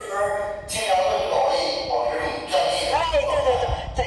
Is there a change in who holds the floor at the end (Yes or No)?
Yes